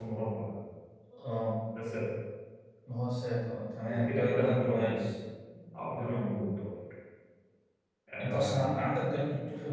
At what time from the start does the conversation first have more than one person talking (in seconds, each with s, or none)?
3.9 s